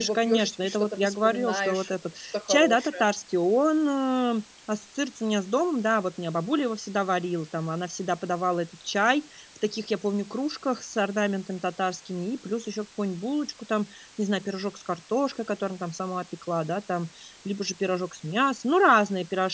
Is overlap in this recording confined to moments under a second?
No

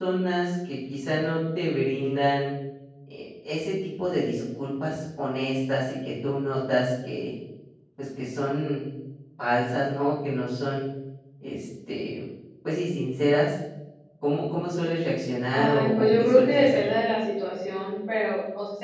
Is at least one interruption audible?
Yes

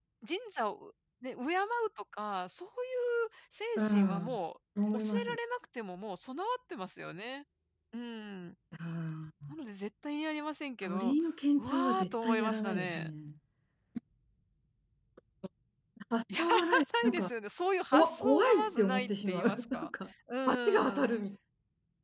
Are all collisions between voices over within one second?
No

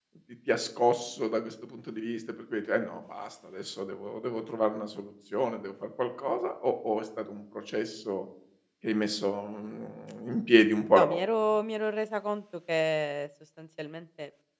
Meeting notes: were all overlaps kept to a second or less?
Yes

